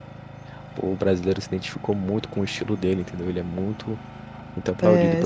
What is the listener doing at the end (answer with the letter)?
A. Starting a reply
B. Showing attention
A